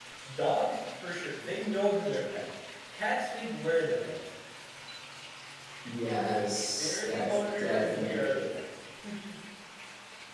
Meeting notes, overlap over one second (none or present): present